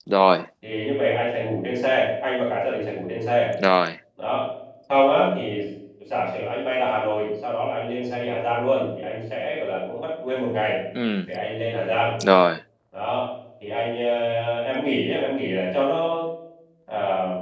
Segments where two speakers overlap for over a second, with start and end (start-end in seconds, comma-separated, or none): none